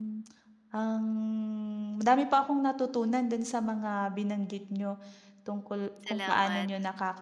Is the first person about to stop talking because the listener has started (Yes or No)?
No